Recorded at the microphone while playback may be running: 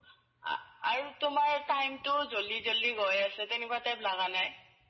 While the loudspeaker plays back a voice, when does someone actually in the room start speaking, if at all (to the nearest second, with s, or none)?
none